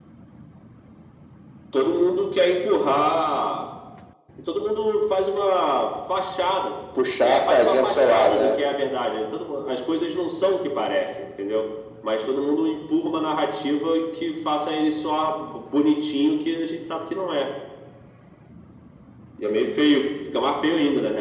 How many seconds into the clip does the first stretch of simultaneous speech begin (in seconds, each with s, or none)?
7.2 s